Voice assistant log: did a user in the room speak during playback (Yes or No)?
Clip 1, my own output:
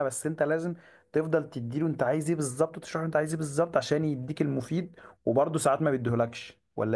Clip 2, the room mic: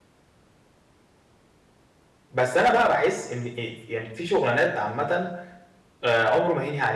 Yes